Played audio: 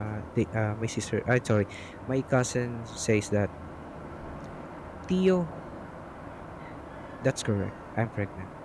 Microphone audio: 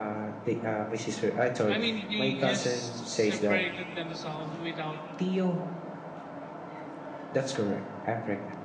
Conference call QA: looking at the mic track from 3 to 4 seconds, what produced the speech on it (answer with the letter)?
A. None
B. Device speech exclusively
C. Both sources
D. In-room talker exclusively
C